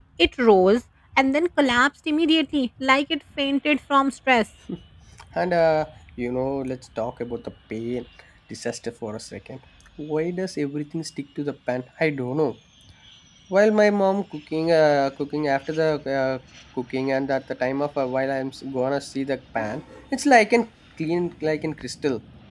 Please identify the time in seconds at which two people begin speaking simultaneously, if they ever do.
none

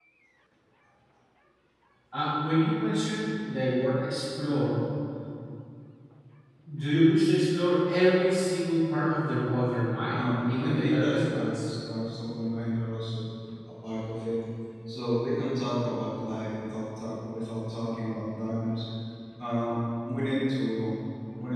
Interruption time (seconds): 10.1 s

